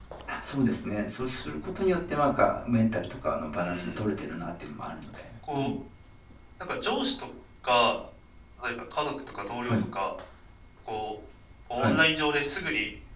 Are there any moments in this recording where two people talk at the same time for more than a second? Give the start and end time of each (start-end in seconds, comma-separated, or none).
none